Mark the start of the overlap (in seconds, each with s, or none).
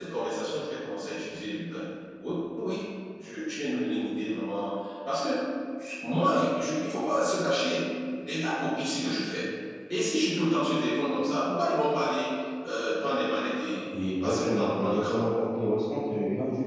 13.9 s